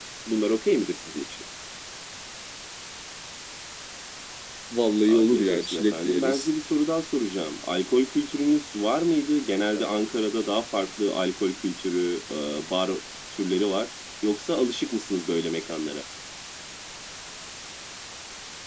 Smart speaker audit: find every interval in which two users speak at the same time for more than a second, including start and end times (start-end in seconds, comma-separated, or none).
5.1-6.5